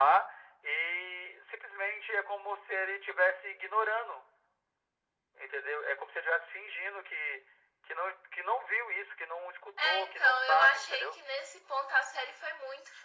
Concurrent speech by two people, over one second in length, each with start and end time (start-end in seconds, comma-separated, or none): 9.8-11.2